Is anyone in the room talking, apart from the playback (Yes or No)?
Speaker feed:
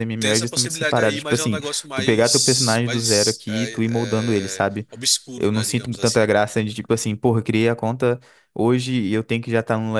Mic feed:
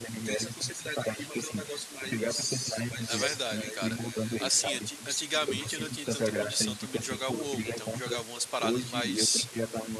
Yes